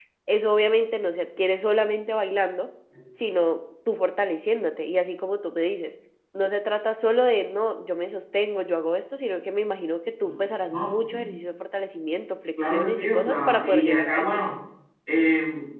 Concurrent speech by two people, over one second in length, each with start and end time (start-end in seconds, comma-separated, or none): 12.6-14.2